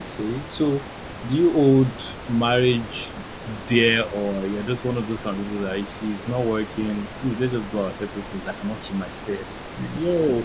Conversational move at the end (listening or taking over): taking over